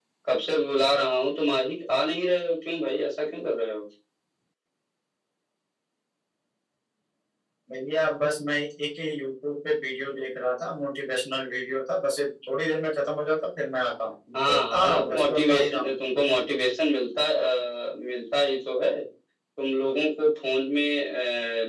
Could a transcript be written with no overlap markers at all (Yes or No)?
No